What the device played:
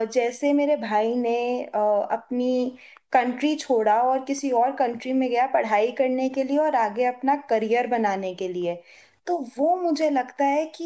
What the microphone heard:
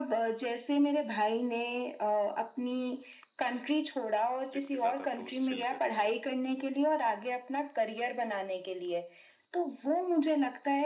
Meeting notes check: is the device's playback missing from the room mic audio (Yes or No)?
No